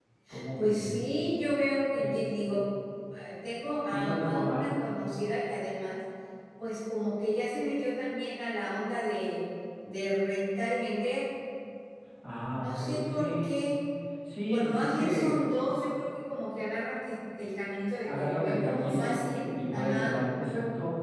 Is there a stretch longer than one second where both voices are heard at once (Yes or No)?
Yes